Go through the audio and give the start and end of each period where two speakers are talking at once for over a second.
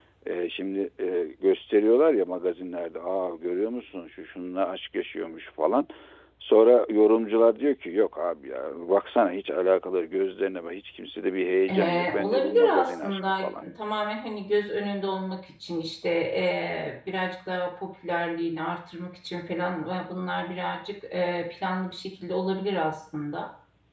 11.7-13.6

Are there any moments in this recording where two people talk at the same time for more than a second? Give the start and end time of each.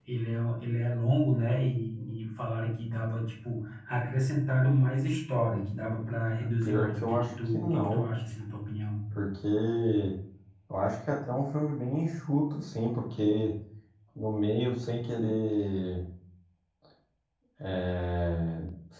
6.6-8.1

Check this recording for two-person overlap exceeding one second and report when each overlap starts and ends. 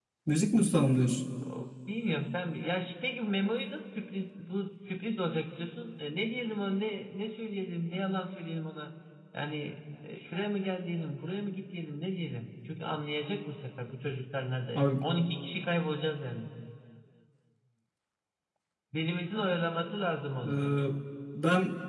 none

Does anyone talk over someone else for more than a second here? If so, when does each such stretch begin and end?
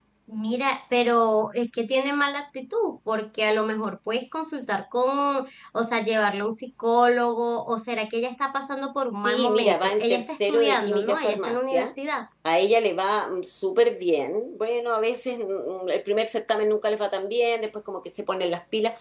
9.2-11.9

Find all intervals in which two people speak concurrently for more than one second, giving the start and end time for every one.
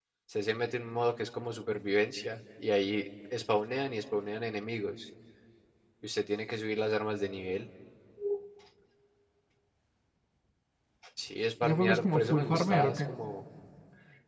11.6-13.0

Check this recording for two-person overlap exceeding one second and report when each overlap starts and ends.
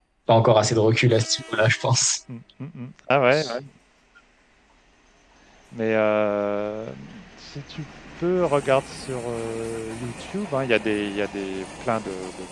none

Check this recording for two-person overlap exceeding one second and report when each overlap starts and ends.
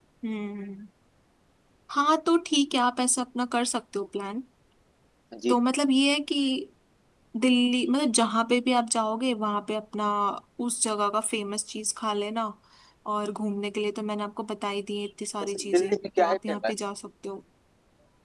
15.4-16.7

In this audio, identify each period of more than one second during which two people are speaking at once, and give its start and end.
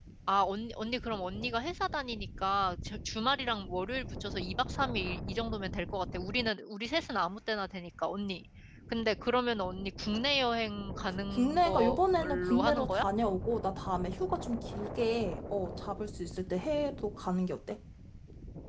11.3-13.0

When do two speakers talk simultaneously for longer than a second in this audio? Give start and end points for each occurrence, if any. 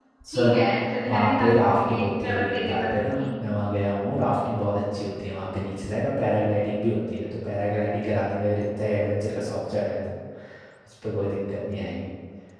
1.1-3.2

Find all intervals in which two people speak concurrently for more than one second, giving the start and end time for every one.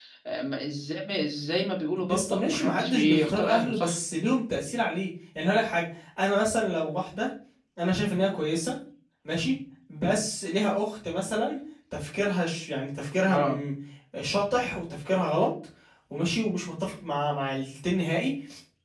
2.1-4.0

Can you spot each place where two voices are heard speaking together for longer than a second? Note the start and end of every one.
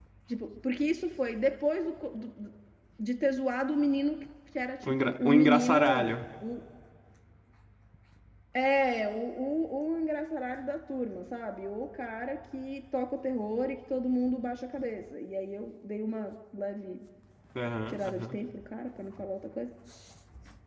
4.8-6.2

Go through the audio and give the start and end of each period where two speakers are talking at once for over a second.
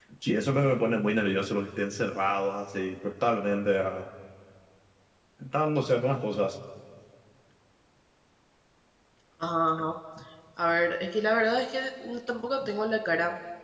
none

